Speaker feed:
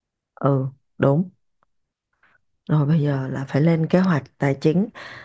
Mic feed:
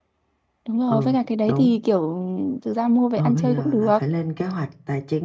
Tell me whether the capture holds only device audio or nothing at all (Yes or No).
No